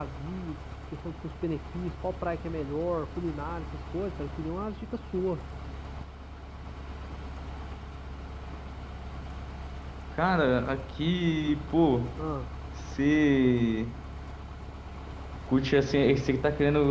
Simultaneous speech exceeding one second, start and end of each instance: none

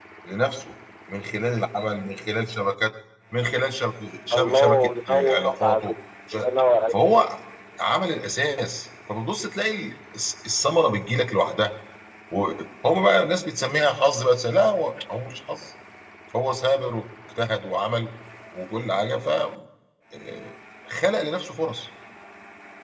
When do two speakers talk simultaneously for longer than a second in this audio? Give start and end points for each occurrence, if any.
4.3-6.0

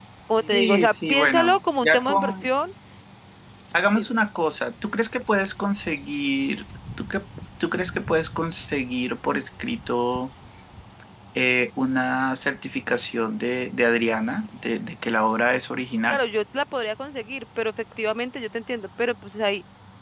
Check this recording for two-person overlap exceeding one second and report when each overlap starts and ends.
0.5-2.5

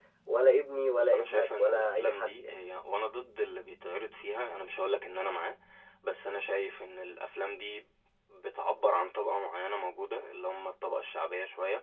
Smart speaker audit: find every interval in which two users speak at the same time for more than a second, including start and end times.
0.9-2.5

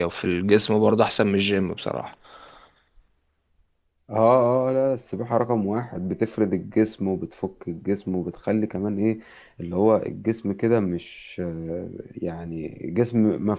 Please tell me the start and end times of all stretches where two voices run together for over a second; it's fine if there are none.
none

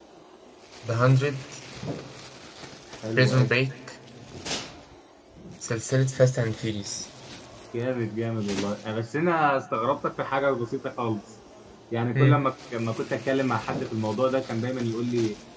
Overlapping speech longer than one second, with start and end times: none

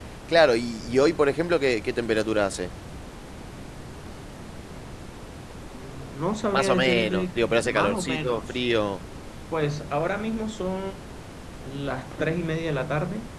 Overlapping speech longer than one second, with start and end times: 6.5-8.4

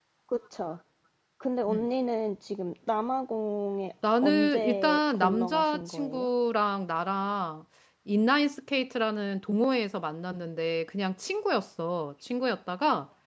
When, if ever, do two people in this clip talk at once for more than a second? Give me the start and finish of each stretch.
4.2-6.3

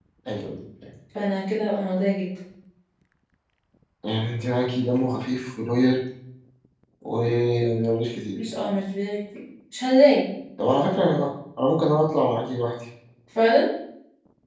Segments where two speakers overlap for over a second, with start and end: none

